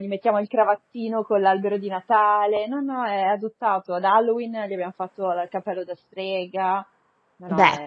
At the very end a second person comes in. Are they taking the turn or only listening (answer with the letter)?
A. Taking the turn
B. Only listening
A